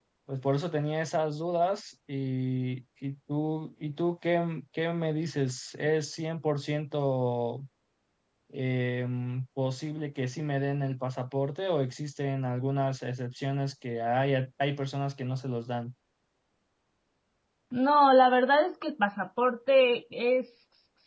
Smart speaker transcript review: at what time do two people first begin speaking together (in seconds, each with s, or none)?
none